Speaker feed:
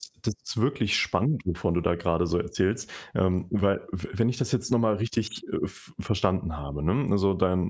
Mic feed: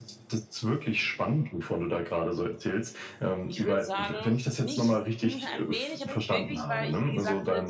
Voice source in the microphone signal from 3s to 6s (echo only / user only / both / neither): both